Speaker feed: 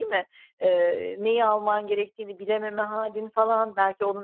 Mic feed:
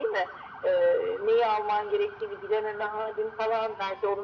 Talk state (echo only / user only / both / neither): echo only